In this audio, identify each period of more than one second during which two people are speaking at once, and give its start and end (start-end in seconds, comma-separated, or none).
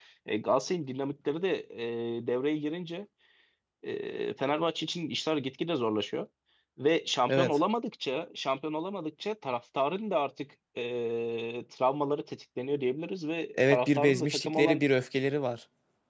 13.6-14.8